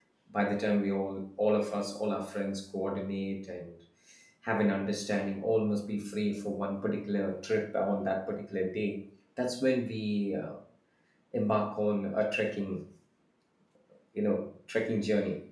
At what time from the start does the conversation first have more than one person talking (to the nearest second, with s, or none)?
none